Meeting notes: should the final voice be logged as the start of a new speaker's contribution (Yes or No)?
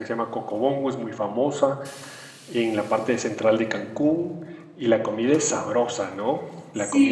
Yes